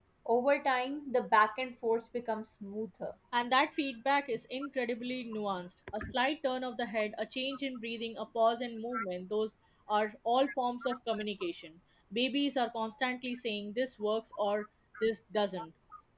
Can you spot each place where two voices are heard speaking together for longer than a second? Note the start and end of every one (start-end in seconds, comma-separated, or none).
none